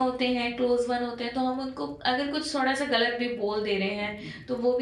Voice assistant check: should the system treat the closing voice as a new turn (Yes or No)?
No